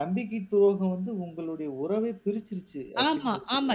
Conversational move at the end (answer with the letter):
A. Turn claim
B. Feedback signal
A